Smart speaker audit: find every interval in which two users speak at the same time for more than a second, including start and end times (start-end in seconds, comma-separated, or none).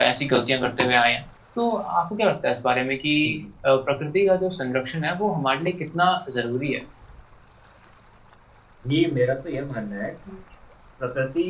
none